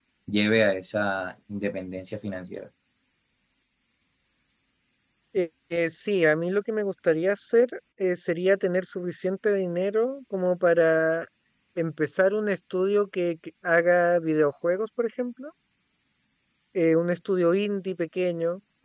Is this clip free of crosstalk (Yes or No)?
Yes